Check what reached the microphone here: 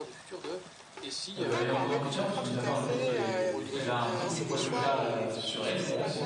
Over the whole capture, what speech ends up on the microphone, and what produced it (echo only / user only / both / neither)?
both